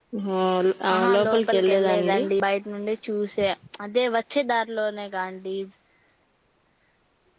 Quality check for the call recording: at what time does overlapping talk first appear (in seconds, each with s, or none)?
0.9 s